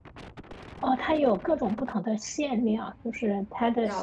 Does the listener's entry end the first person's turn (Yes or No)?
No